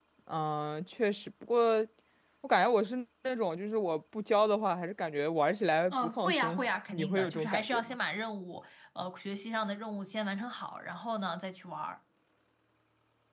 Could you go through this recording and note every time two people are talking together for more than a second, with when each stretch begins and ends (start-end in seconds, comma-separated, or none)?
5.9-8.0